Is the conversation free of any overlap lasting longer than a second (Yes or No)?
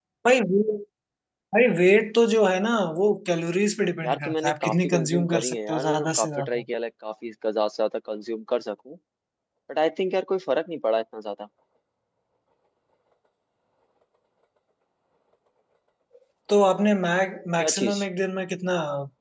No